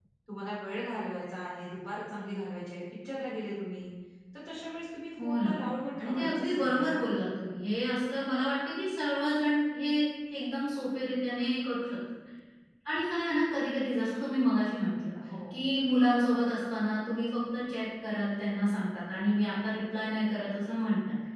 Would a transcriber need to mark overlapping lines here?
Yes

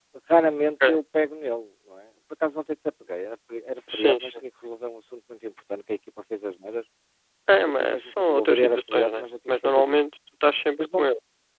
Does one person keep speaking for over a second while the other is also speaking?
Yes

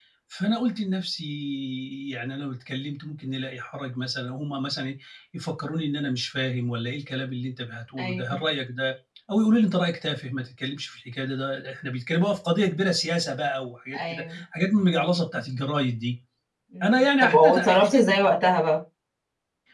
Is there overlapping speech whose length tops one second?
Yes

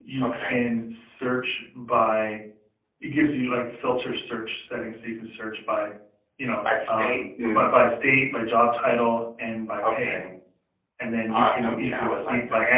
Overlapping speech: Yes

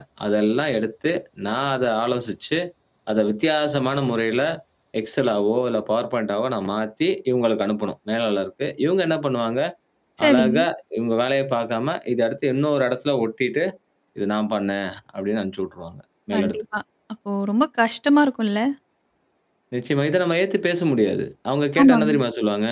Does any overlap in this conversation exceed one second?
No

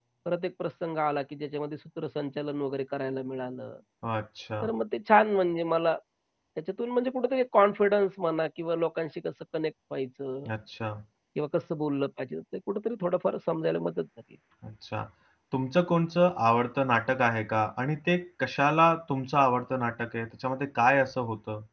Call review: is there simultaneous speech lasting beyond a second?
No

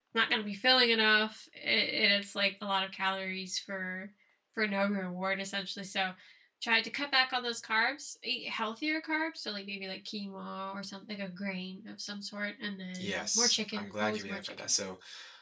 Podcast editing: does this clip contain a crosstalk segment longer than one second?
Yes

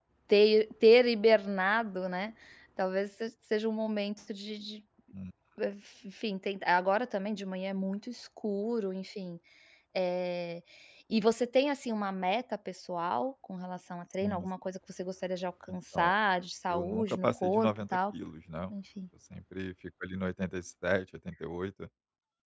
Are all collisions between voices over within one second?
No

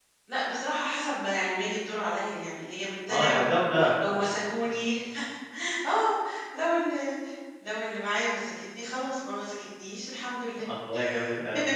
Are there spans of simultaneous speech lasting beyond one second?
No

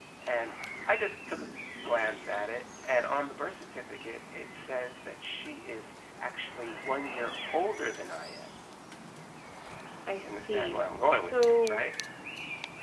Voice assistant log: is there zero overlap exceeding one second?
No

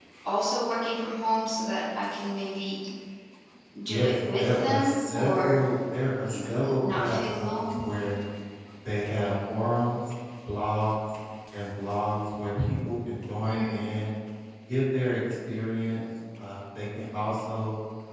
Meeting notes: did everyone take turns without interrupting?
No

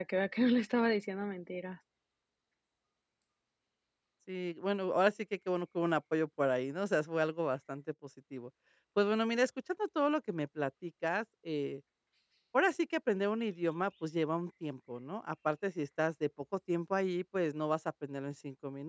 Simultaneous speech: No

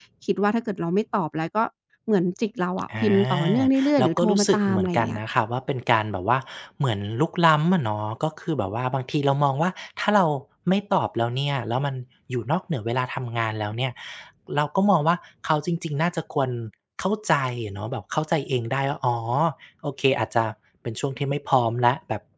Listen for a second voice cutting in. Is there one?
Yes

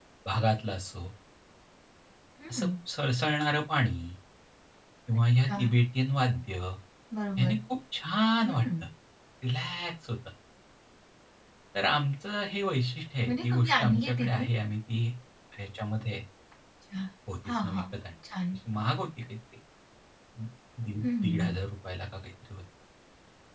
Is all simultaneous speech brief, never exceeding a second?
No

